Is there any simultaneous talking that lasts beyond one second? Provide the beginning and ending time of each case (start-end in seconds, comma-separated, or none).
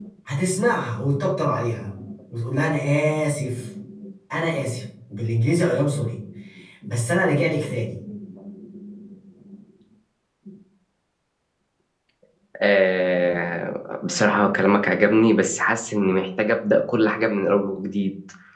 none